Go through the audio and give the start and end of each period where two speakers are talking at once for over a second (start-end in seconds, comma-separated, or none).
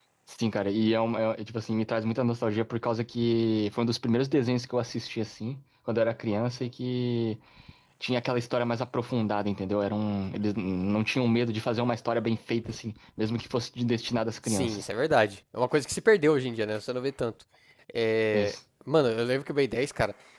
none